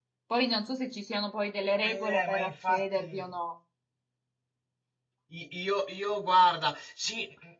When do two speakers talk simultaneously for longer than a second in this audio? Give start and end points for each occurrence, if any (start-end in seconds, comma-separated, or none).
1.8-3.2